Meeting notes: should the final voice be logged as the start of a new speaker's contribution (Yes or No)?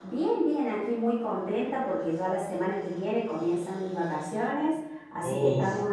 No